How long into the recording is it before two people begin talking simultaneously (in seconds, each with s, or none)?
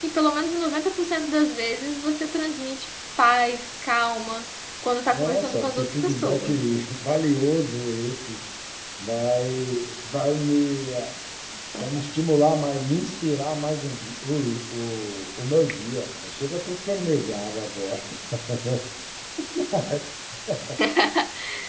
5.1 s